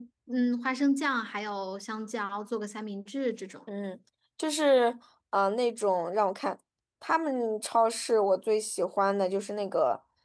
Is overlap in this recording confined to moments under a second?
Yes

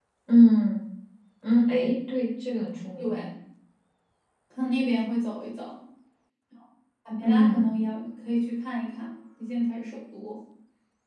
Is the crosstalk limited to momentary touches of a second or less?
Yes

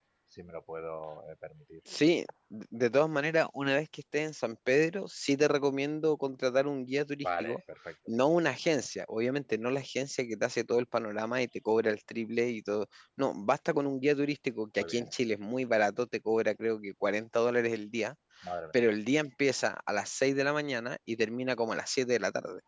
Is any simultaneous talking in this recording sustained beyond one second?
No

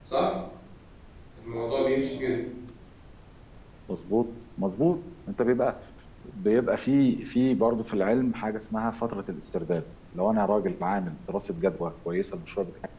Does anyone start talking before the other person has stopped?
No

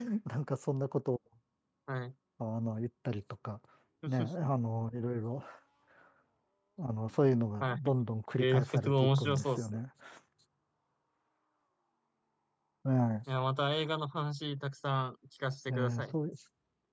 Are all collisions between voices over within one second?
No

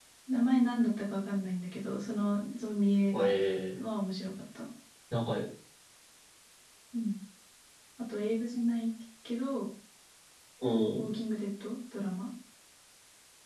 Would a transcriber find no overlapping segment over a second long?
Yes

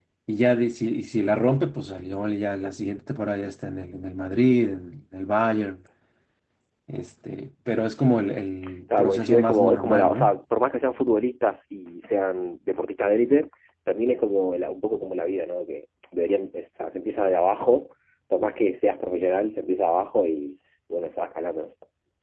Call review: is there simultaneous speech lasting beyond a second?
Yes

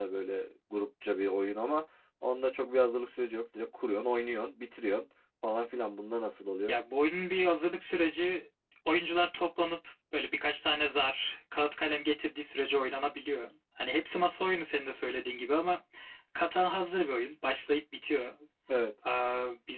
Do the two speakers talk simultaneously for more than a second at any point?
No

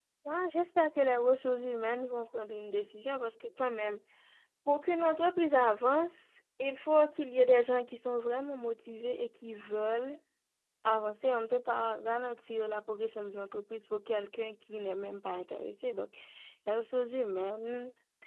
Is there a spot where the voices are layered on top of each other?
No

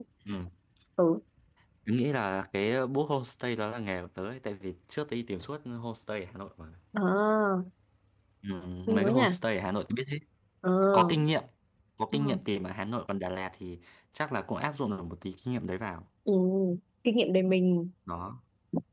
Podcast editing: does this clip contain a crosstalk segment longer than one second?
No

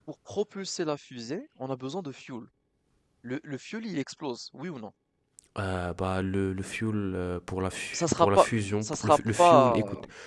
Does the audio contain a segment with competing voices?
Yes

